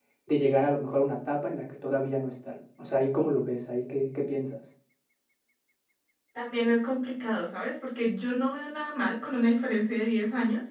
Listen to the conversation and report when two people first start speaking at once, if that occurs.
none

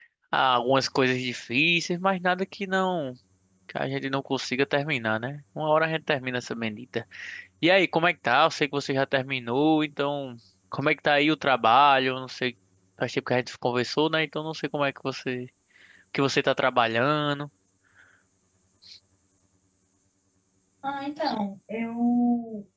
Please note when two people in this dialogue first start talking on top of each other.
none

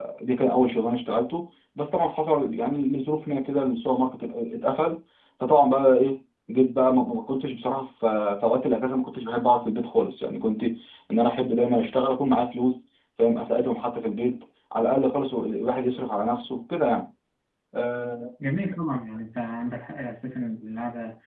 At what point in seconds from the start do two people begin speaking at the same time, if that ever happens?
none

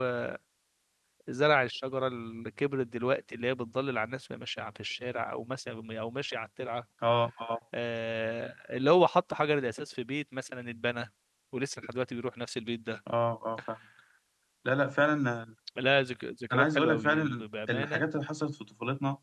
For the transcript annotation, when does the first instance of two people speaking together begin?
16.5 s

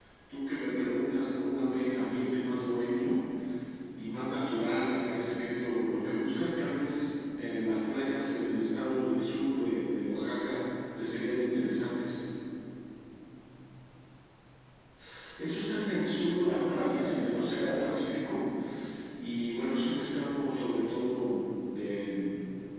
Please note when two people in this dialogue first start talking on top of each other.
16.4 s

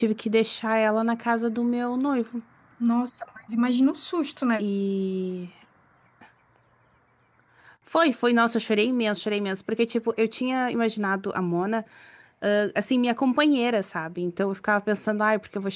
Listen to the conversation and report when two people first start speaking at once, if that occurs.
none

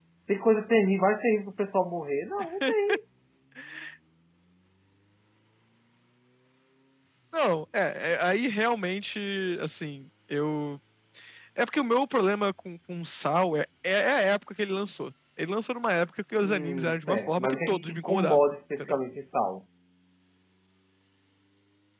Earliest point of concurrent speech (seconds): 16.4 s

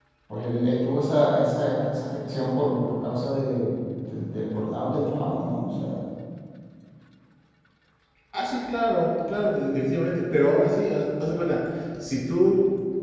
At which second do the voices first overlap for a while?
none

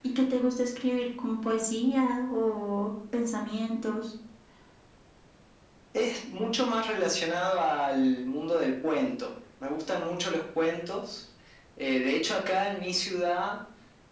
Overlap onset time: none

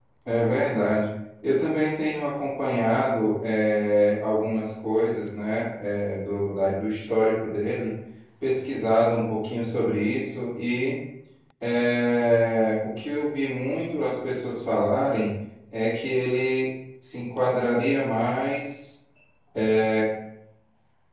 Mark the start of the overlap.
none

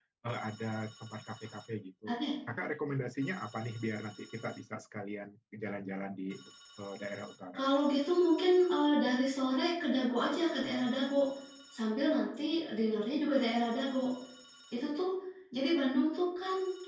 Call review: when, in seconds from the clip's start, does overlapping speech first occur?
none

